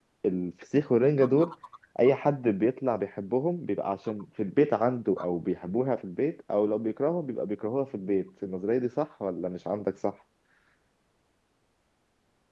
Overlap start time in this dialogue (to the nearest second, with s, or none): none